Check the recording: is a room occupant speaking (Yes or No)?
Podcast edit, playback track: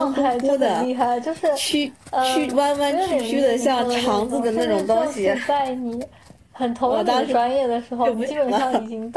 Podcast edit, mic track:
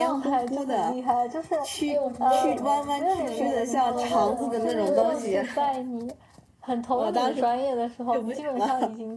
Yes